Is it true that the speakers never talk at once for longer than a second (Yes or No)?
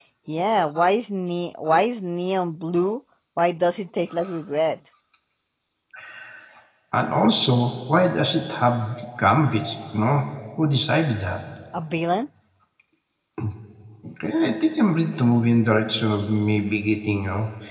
Yes